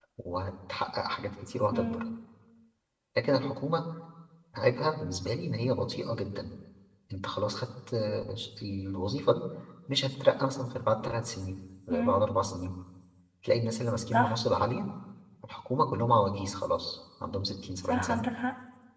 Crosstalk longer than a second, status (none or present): none